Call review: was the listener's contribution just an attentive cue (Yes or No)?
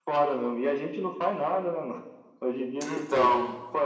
Yes